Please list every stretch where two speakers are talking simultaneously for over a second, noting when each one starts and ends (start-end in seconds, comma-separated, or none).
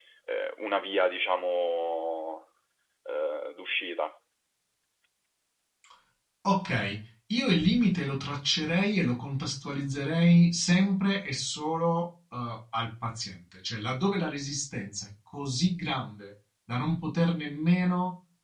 none